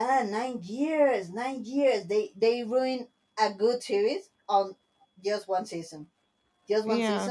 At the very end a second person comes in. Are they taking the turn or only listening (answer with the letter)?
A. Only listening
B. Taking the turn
A